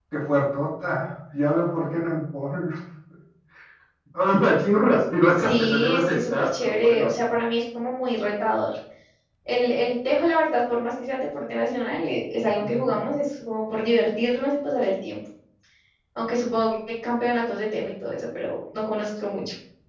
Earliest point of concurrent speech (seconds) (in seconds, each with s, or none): 5.4 s